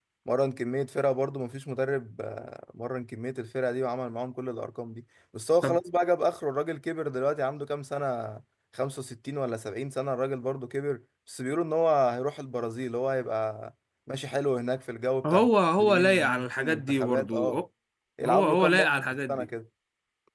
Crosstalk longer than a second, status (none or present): present